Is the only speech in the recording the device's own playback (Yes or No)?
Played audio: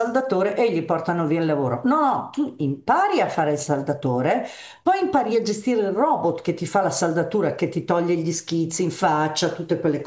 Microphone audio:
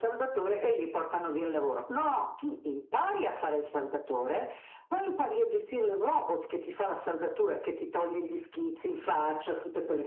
Yes